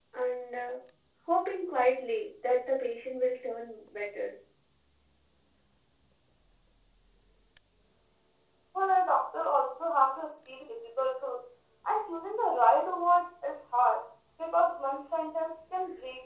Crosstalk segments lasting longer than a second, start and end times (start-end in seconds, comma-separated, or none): none